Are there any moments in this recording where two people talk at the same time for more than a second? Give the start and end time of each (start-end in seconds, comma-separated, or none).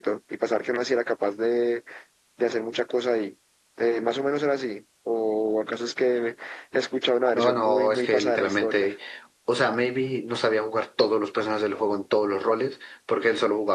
7.3-8.9